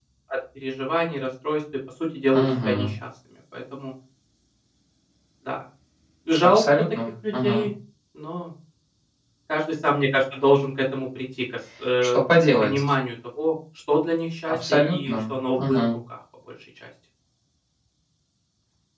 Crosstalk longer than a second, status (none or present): present